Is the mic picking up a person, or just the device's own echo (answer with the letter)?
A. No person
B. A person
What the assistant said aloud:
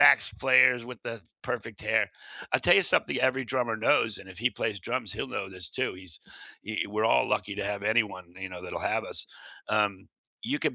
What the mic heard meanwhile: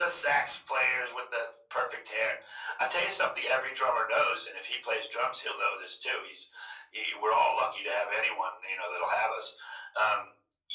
A